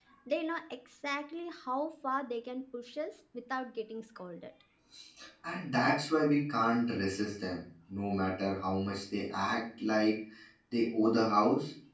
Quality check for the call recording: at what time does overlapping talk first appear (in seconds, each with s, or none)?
none